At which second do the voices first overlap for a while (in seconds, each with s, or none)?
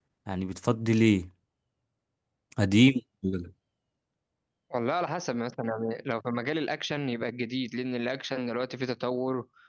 none